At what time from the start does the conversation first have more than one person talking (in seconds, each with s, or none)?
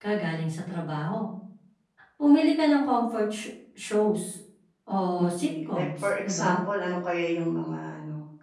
5.2 s